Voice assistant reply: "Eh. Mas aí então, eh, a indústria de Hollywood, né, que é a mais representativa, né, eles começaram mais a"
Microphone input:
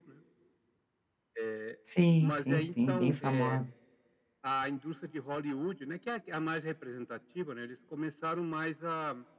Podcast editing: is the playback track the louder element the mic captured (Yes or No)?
No